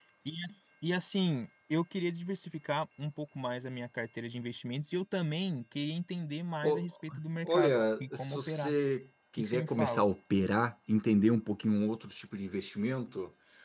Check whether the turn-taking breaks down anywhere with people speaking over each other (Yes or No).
Yes